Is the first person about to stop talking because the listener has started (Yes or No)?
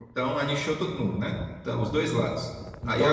No